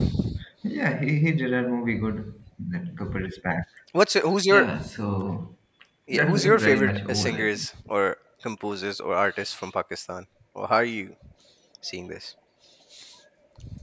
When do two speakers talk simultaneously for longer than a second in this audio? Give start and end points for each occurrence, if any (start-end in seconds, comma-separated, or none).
6.1-7.7